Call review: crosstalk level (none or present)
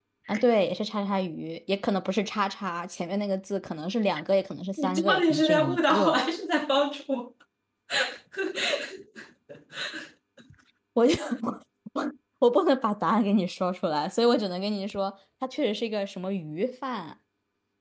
present